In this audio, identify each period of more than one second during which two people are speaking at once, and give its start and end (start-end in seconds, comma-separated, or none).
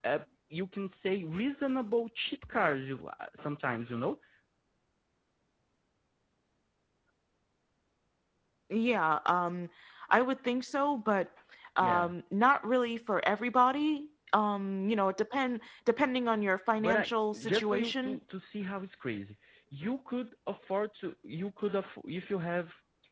16.8-18.2